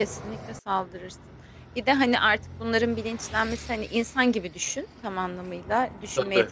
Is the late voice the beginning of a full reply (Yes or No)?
No